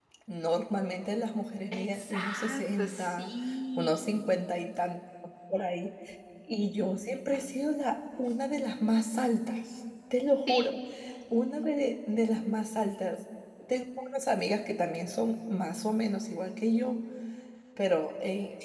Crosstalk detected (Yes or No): Yes